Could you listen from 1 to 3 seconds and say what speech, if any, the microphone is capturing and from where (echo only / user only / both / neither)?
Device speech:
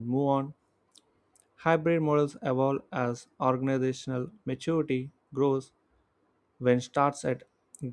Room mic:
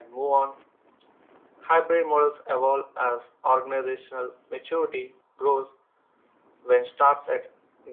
echo only